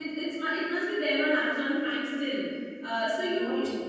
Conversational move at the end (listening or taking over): listening